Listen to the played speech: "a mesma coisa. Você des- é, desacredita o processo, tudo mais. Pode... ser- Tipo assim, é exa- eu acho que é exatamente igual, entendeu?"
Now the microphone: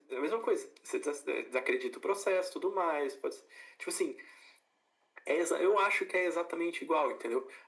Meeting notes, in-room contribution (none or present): none